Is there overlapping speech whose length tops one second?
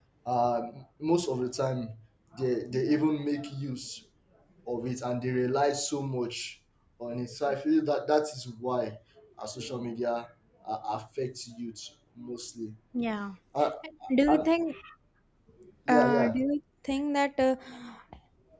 No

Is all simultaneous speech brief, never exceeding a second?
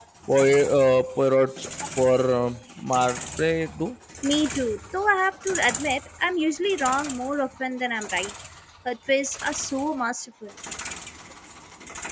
Yes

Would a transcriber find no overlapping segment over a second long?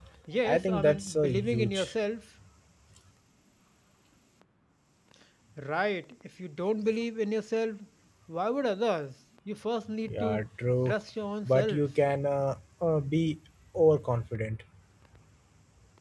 No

